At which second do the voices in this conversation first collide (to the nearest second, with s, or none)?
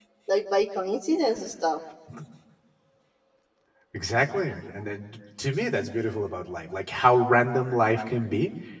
none